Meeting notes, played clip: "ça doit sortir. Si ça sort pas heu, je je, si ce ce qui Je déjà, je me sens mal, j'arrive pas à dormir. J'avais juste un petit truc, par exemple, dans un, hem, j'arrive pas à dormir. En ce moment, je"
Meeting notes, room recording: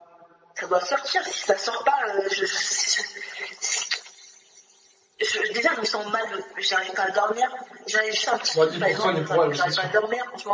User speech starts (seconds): 8.5 s

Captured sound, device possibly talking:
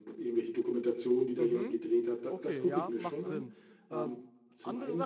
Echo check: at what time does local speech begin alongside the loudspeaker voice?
1.4 s

